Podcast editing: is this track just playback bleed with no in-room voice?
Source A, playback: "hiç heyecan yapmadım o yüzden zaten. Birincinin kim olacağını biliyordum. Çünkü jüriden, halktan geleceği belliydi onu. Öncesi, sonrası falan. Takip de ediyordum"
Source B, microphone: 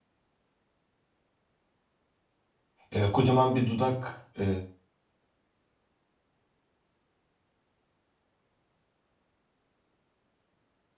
No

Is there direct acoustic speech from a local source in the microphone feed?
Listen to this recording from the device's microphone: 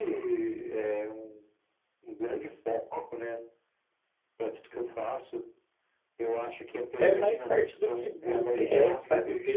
Yes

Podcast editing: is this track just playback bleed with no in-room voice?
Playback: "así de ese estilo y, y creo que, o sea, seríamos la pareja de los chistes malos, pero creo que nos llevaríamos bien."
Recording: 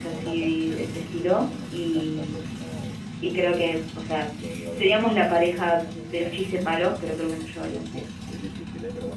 No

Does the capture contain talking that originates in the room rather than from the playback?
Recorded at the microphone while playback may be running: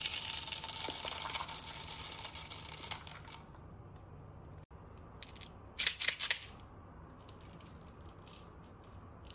No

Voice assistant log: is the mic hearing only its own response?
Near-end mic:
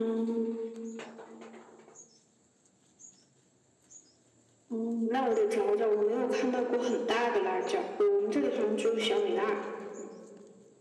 Yes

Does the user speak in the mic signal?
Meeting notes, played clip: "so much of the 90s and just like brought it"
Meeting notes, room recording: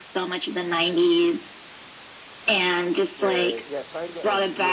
Yes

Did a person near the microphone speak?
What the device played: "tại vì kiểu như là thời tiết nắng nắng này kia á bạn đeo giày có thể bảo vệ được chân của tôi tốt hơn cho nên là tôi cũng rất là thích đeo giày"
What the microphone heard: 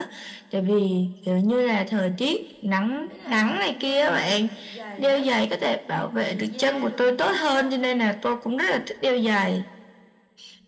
Yes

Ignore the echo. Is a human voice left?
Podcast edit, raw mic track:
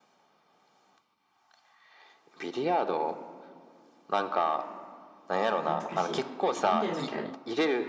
Yes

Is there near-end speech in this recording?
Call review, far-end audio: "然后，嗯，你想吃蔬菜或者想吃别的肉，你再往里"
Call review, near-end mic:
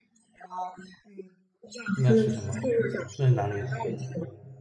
Yes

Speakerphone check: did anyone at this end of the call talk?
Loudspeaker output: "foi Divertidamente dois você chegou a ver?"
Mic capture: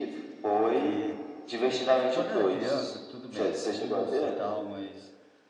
Yes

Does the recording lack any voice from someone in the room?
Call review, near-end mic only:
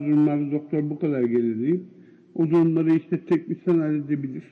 Yes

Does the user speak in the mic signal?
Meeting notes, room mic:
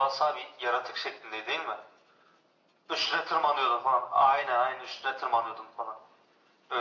No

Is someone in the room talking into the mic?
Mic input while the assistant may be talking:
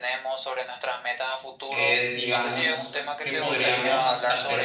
Yes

